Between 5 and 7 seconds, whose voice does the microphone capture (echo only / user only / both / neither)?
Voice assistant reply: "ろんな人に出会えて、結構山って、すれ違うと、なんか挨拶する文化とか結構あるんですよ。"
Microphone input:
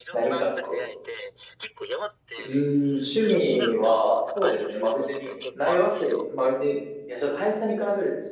both